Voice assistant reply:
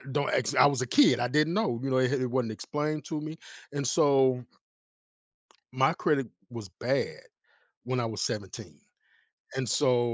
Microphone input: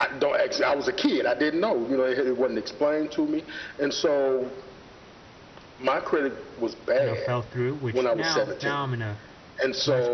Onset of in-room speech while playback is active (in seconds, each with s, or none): 7.0 s